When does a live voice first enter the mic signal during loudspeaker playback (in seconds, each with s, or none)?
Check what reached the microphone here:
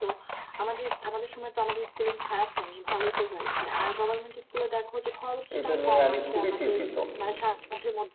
5.6 s